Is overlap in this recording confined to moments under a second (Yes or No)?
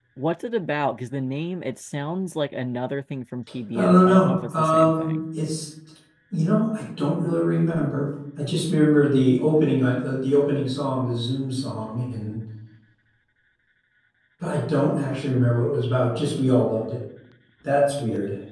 No